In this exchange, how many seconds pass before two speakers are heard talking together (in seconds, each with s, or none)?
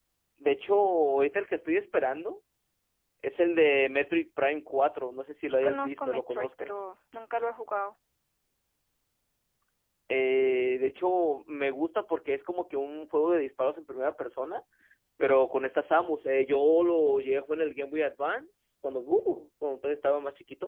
5.5 s